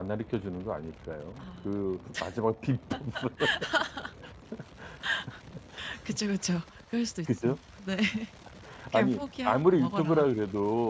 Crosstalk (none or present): present